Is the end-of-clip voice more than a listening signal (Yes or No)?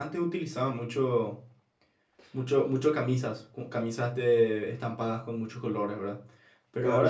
No